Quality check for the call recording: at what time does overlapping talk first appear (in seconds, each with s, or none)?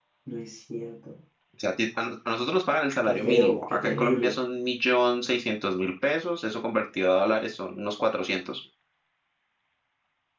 3.0 s